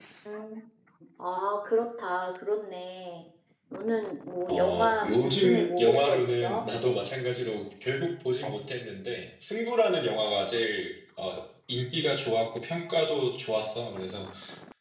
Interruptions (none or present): present